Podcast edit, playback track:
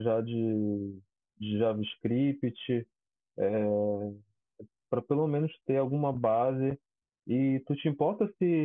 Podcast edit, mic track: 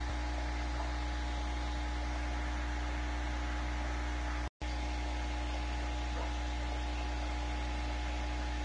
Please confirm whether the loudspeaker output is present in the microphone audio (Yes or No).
No